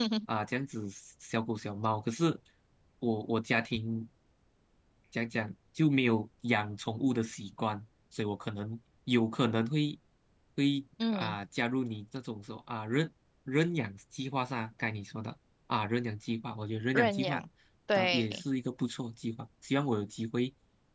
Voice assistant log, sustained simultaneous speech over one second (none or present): none